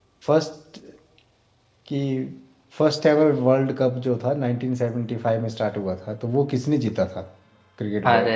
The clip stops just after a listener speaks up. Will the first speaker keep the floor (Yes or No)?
No